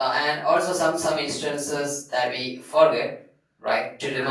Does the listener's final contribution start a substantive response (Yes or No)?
No